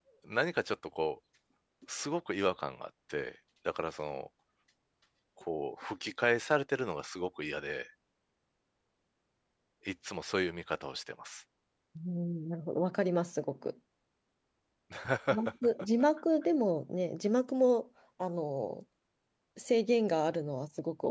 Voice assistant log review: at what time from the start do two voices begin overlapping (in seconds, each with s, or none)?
none